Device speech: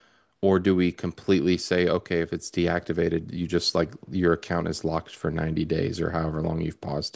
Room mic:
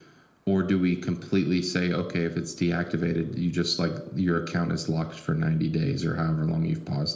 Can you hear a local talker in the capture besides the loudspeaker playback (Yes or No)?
No